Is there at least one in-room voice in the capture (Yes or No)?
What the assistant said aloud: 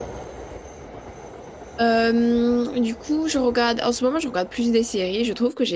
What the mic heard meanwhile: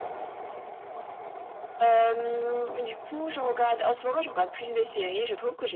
No